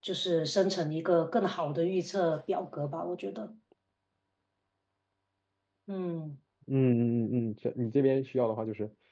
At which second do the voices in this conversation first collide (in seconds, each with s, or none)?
none